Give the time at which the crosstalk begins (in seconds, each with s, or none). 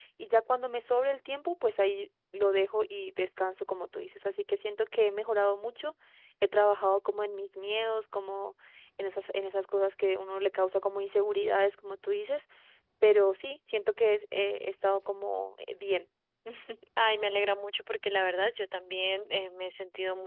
none